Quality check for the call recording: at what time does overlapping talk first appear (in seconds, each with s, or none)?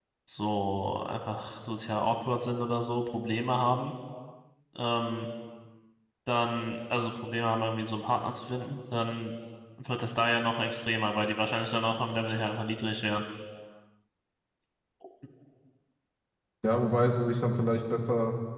none